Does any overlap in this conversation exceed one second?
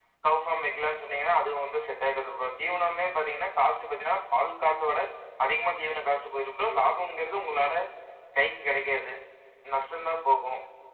No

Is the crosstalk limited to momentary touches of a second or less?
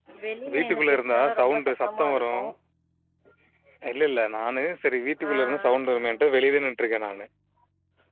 No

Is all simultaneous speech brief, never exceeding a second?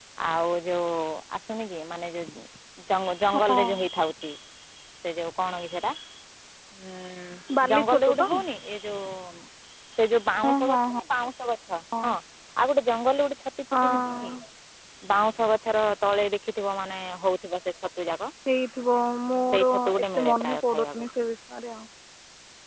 No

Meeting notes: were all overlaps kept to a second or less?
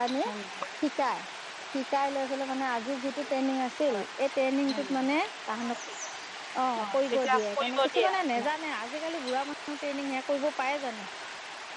No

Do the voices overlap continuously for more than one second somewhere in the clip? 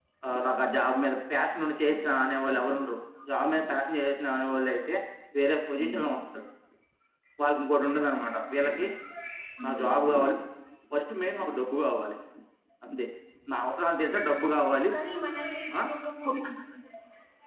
No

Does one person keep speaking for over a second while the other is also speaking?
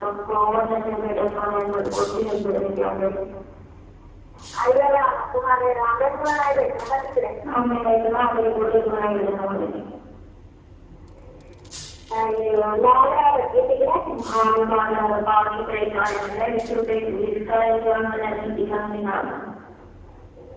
No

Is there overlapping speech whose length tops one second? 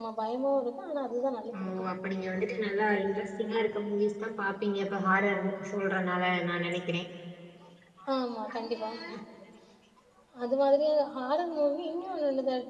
No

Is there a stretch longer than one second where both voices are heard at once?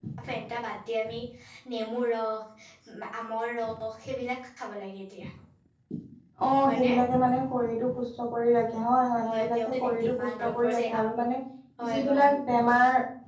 Yes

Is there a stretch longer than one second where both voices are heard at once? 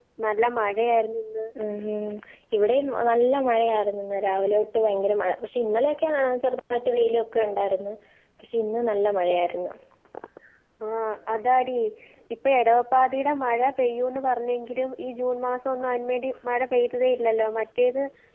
No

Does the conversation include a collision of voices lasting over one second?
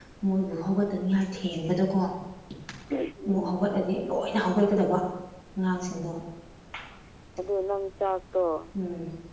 No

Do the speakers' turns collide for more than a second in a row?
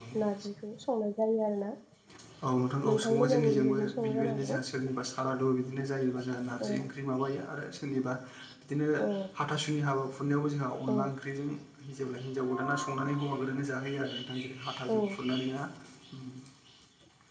Yes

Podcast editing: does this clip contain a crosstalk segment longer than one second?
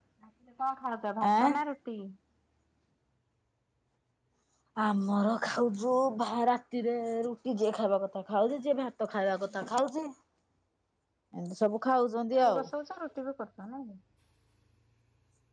No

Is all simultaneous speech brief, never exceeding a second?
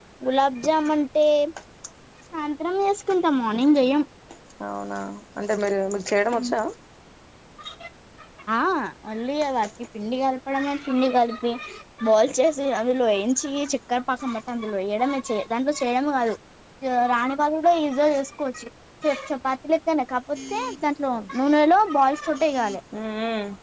Yes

